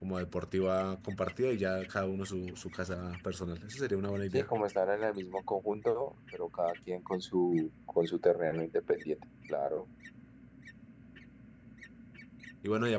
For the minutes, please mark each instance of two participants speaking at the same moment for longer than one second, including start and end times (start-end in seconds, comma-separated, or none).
none